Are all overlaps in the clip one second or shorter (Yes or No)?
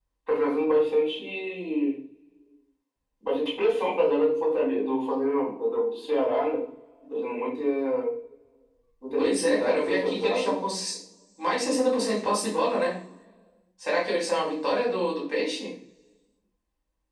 No